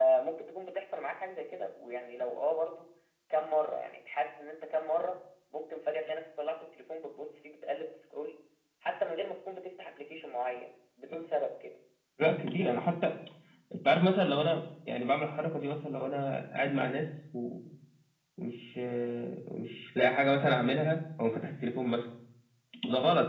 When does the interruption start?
none

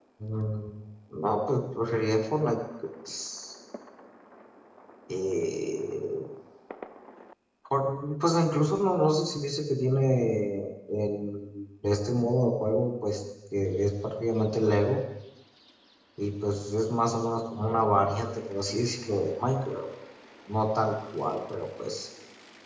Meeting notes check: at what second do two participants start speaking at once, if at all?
none

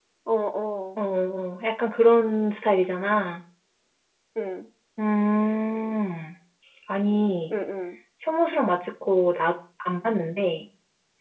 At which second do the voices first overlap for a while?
none

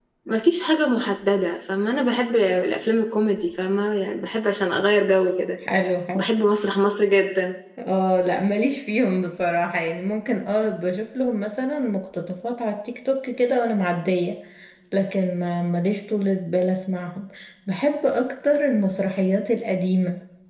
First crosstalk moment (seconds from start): none

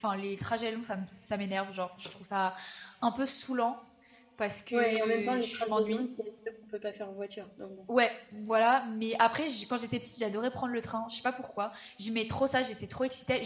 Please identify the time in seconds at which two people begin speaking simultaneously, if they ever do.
4.7 s

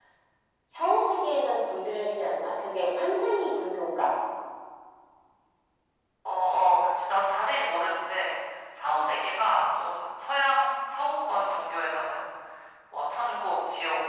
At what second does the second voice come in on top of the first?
none

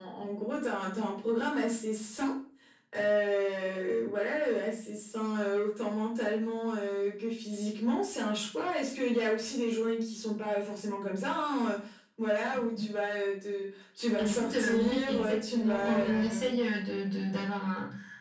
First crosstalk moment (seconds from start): 14.2 s

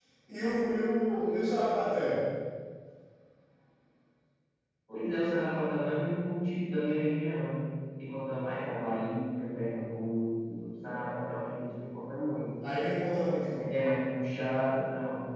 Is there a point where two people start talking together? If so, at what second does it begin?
none

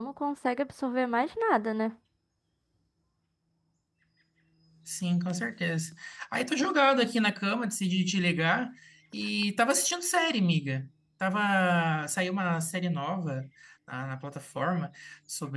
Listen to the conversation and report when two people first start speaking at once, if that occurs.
none

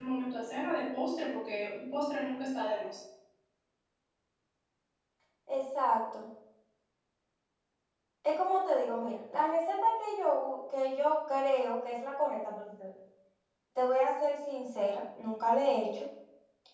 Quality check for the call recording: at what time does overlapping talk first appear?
none

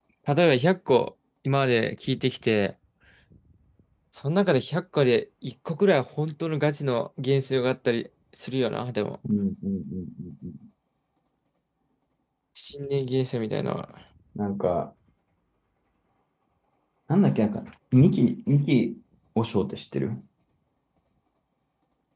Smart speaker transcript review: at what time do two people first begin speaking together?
none

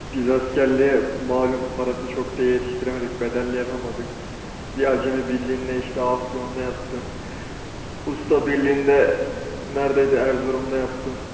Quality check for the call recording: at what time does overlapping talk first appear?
none

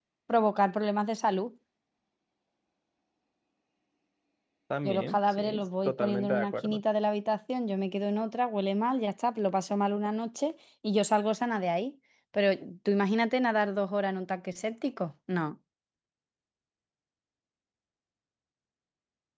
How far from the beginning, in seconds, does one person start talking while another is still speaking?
4.8 s

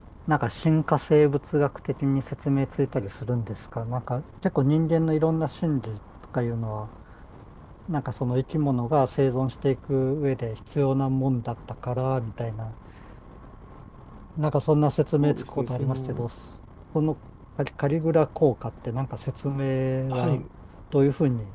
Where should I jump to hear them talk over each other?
15.1 s

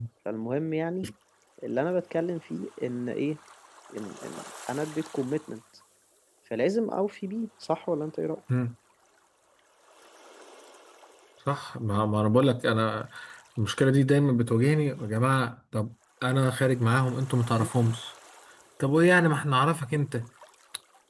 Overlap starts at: none

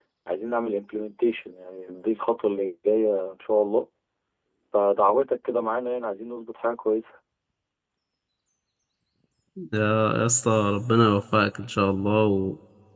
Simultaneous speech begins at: none

